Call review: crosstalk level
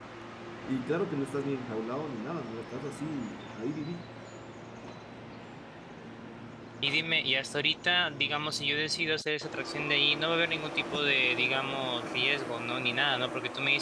none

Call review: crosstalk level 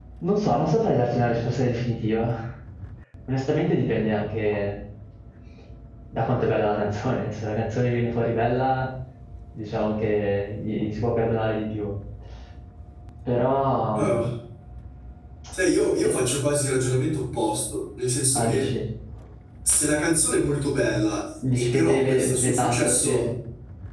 present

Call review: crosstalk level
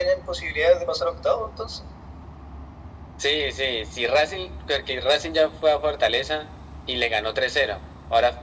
none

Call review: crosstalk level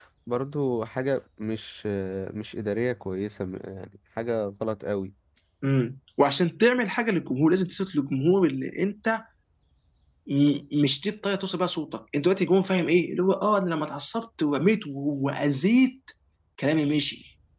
none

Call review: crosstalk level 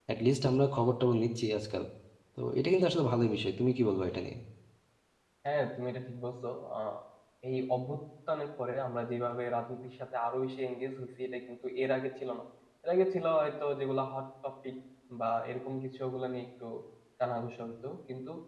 none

